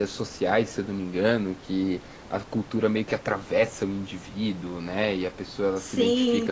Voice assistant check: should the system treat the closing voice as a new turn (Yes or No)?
Yes